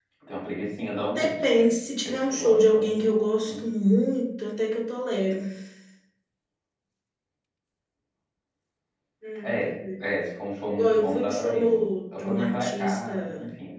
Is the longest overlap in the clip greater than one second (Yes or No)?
Yes